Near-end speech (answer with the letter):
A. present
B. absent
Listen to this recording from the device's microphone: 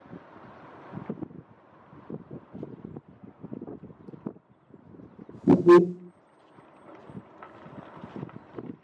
A